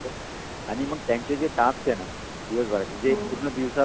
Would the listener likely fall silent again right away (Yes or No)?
Yes